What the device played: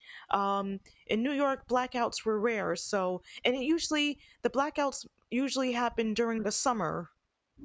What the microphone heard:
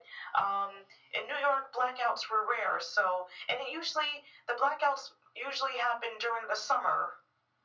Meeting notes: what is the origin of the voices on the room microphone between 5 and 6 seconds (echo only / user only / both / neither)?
echo only